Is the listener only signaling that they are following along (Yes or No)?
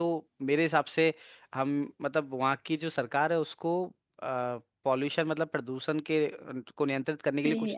No